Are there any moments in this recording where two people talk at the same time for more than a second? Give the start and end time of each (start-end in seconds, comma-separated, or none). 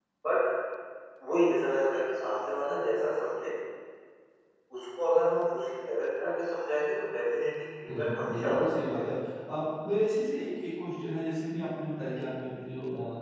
7.9-9.1